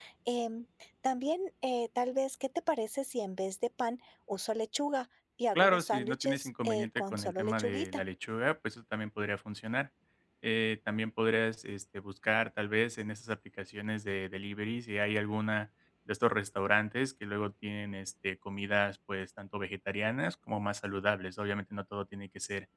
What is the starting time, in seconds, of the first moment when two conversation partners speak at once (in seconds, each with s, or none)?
5.6 s